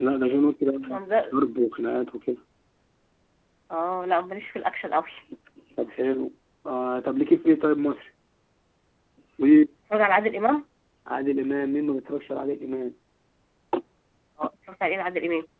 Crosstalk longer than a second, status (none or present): none